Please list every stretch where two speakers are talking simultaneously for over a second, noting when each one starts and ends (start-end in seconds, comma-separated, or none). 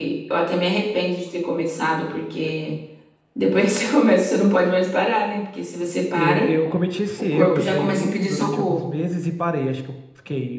7.3-8.9